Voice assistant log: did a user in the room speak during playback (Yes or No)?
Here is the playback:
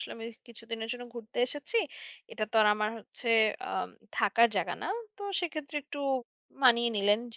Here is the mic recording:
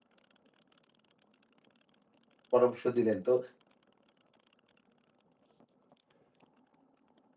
Yes